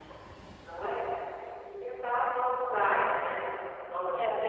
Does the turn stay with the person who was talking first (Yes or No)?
No